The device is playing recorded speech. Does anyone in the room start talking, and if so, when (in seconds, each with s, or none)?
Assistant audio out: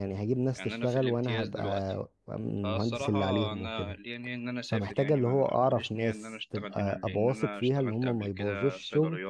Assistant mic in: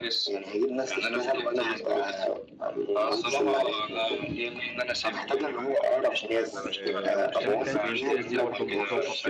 6.5 s